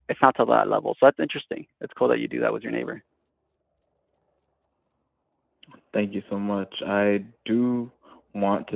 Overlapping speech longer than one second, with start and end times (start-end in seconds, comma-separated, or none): none